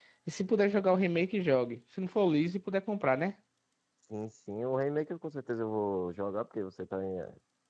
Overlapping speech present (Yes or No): No